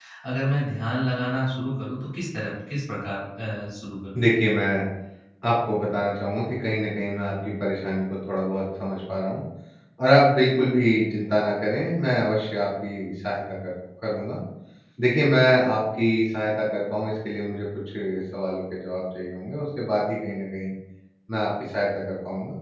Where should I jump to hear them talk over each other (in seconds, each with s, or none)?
none